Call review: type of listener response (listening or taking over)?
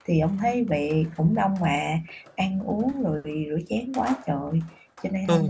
taking over